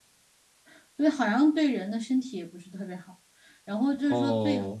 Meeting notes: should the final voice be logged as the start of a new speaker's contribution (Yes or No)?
No